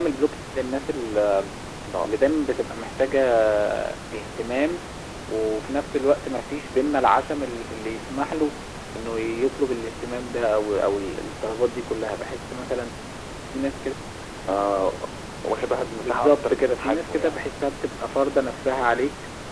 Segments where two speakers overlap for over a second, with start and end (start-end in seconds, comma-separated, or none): 16.0-17.4